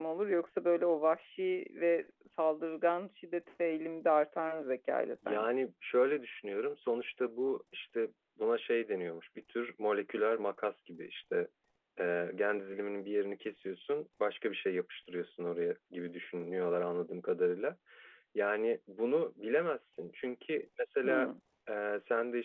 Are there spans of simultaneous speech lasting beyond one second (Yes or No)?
No